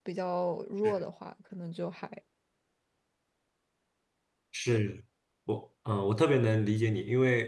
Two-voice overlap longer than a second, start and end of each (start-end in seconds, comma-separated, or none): none